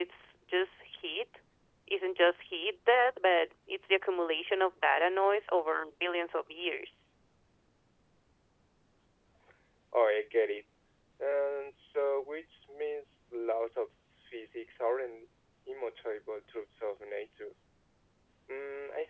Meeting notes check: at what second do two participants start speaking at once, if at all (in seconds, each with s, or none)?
none